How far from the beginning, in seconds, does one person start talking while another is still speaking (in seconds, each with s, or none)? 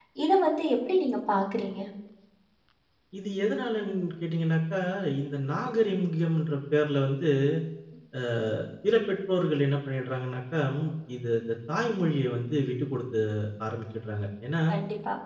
none